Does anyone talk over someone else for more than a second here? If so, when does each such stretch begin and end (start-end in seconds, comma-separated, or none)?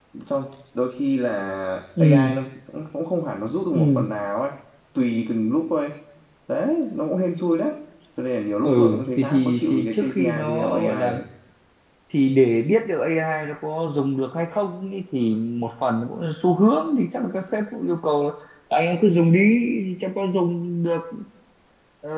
8.6-11.1